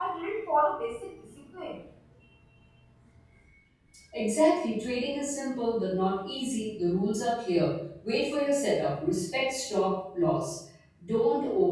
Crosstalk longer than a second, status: none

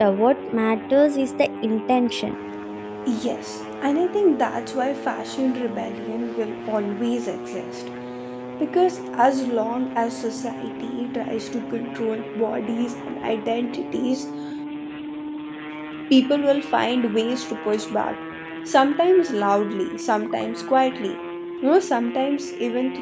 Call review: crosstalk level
none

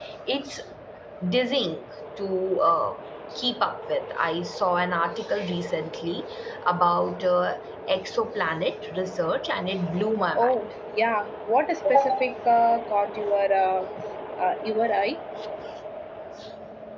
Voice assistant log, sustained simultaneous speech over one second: none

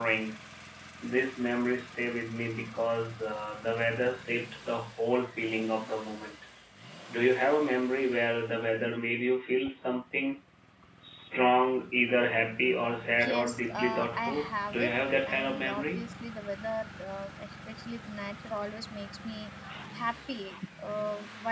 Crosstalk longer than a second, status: present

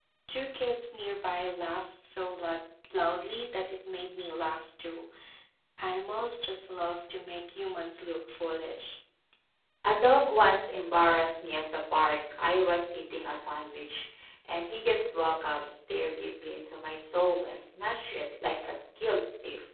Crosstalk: none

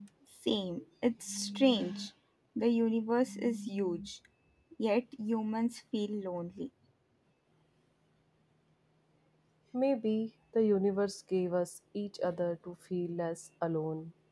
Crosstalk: none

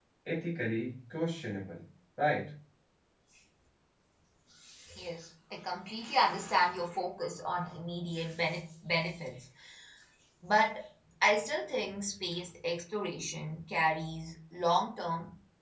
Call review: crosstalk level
none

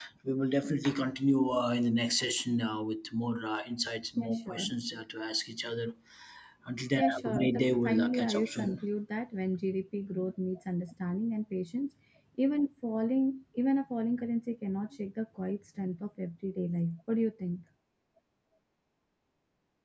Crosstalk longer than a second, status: present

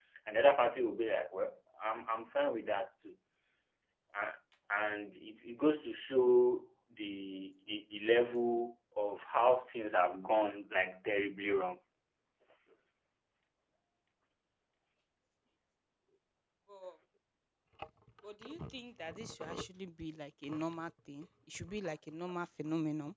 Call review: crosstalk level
none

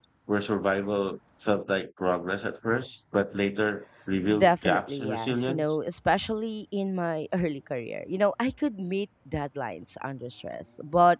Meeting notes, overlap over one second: present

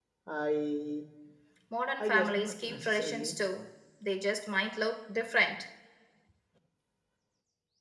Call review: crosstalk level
present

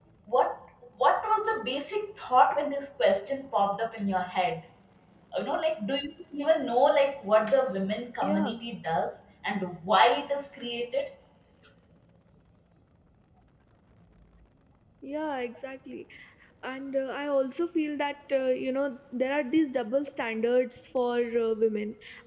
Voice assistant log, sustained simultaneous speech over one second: none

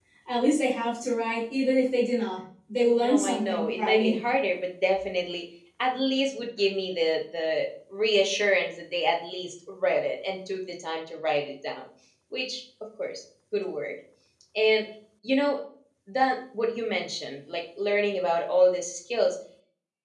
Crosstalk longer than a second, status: present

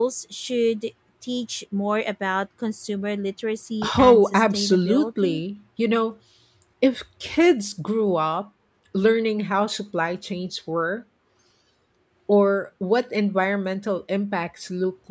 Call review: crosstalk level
present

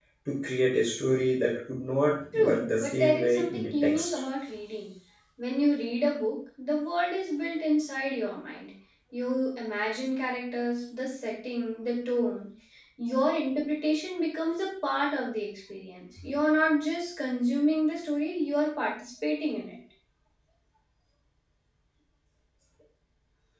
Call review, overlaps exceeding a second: present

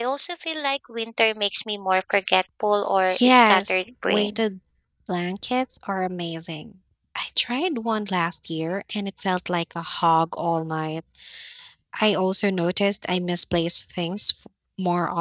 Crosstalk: present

